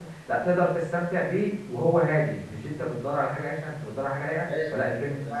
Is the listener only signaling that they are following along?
No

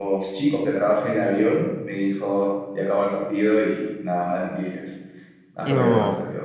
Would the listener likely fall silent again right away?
Yes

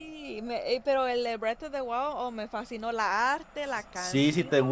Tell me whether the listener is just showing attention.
No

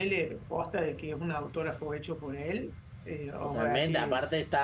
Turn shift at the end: Yes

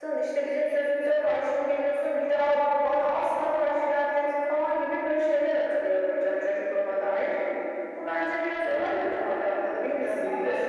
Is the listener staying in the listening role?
No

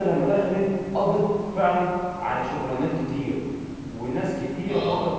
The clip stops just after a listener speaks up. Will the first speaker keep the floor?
Yes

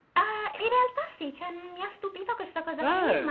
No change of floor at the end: Yes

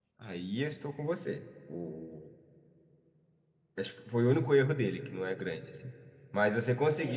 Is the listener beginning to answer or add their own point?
No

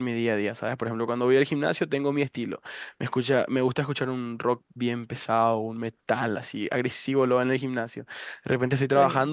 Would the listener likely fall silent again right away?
Yes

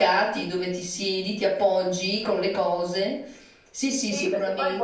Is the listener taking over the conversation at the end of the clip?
Yes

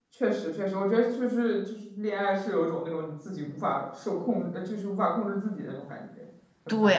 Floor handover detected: Yes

